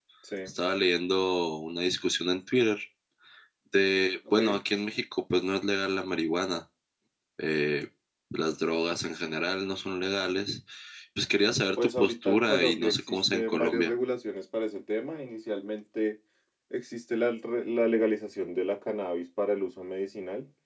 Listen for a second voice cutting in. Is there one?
Yes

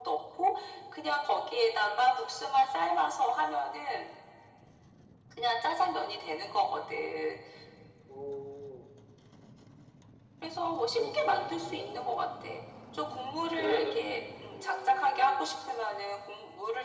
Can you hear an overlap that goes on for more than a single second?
Yes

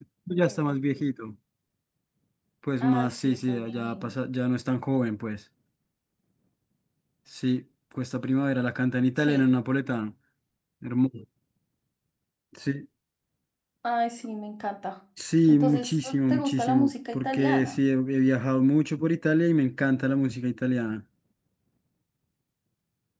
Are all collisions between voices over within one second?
No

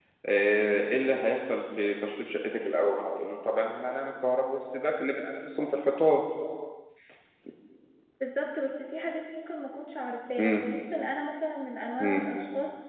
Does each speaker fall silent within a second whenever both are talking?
Yes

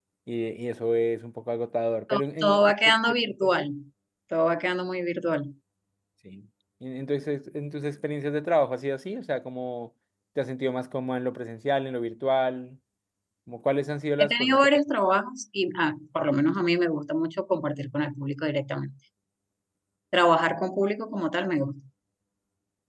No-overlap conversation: No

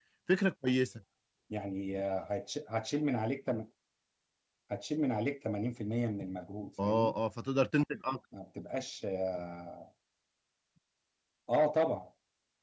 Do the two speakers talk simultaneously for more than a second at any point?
No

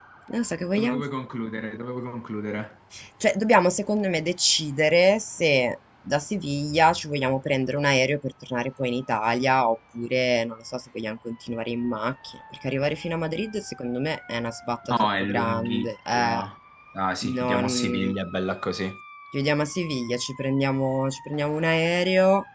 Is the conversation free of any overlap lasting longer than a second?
No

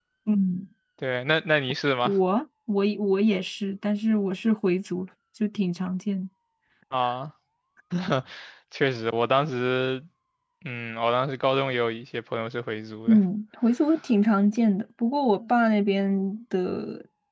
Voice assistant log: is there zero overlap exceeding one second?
Yes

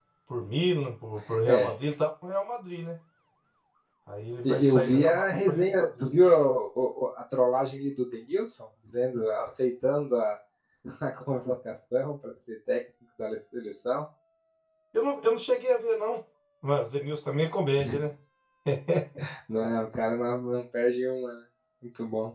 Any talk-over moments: Yes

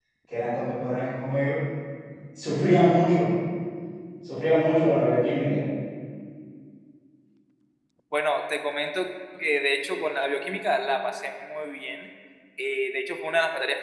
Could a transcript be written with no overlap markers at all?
Yes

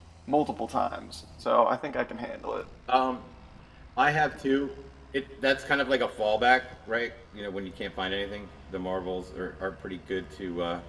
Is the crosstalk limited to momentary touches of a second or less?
Yes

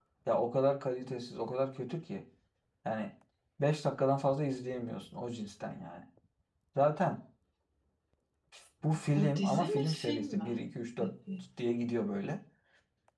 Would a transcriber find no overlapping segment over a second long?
No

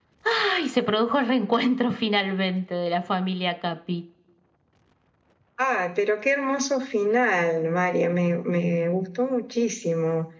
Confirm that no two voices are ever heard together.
Yes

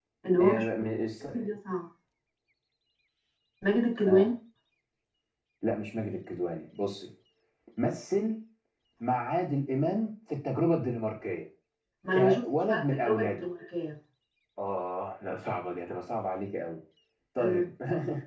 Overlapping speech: Yes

